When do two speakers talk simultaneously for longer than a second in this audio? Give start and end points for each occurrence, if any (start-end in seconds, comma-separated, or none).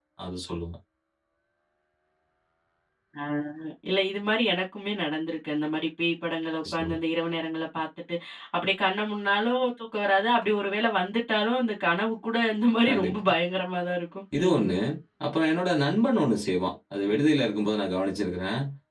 none